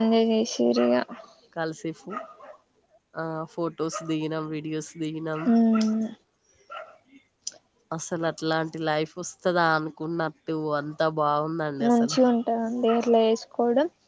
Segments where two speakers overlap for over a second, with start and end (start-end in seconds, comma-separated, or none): none